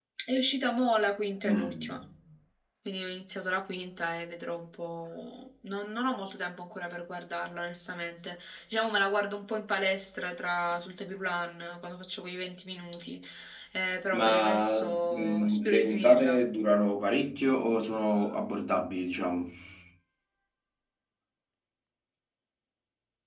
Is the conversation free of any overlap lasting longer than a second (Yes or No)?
No